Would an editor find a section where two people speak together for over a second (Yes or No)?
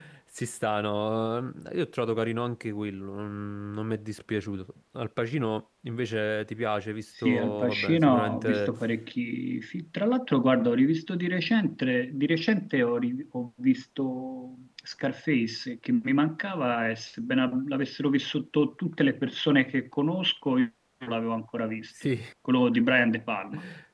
Yes